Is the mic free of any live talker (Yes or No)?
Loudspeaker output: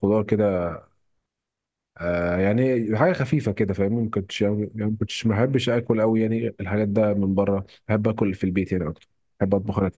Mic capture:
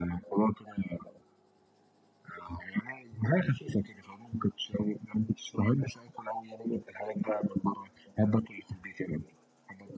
Yes